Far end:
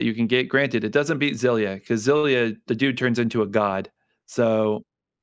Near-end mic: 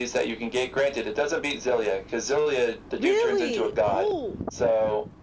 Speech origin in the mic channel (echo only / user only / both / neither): both